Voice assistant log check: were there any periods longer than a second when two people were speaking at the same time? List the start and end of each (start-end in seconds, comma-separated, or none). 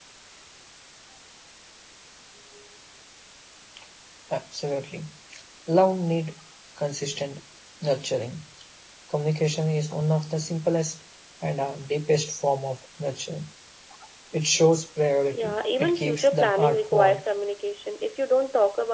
15.3-17.2